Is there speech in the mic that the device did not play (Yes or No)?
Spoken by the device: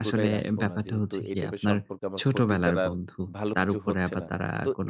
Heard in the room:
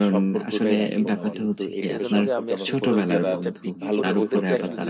Yes